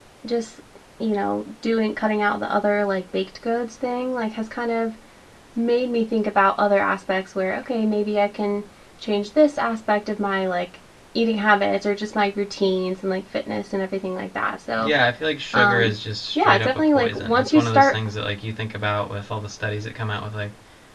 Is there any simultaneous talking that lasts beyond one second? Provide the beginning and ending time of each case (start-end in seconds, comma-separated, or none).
16.4-17.9